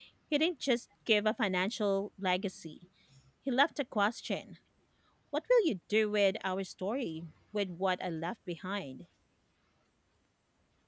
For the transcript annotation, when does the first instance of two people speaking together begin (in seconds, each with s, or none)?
none